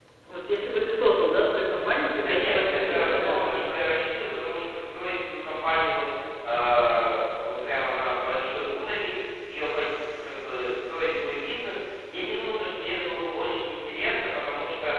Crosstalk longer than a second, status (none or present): present